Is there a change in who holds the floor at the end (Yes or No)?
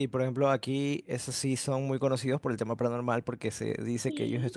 No